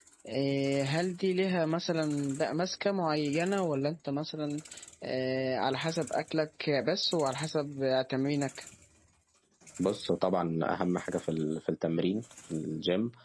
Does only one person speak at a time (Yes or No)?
Yes